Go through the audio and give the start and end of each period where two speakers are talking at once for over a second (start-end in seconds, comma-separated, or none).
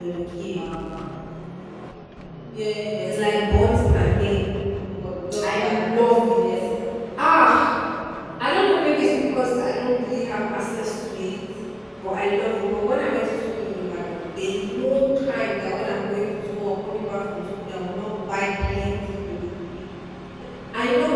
3.0-4.4